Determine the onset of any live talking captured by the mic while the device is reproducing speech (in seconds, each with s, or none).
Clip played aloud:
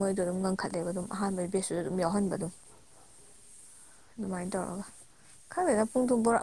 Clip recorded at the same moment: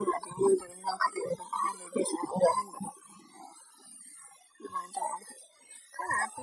none